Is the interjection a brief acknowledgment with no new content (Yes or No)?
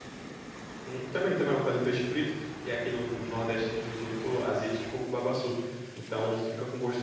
Yes